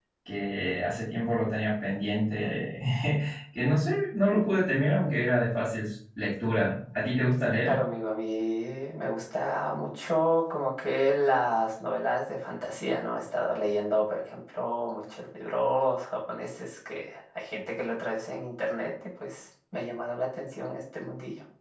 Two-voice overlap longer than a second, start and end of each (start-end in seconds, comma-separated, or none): none